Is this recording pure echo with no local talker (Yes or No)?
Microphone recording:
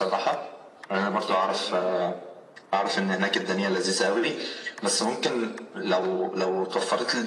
No